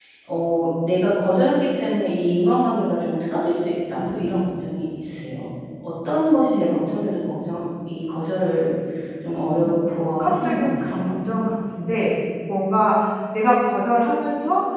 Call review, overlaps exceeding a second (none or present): present